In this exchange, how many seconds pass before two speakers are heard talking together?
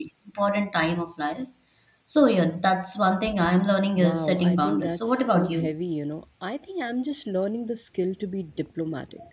4.0 s

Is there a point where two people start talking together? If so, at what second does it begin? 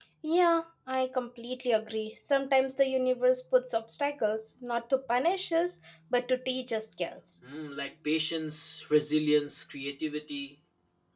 none

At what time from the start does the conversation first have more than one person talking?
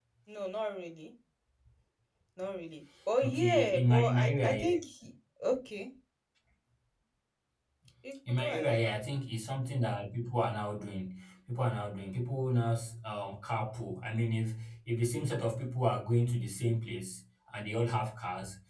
3.2 s

